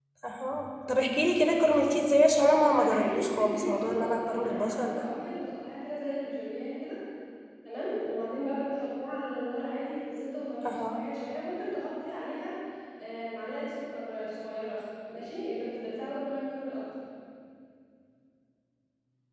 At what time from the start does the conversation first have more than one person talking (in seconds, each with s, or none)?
2.7 s